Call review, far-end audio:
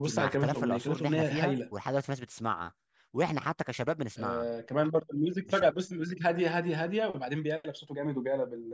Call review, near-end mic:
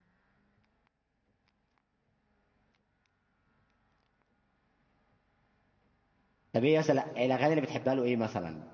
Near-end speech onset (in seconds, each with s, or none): 6.5 s